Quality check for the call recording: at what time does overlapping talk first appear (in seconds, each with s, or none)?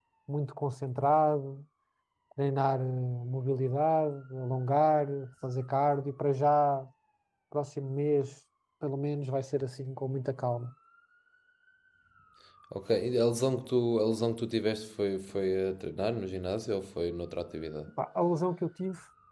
none